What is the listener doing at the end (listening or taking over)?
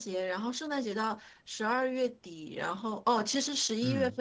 listening